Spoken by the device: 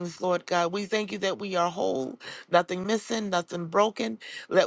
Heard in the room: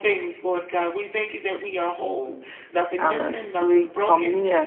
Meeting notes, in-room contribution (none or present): present